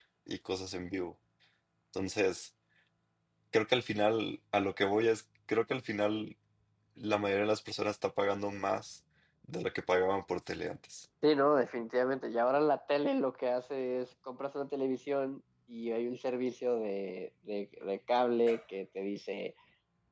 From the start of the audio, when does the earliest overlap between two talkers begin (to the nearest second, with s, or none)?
none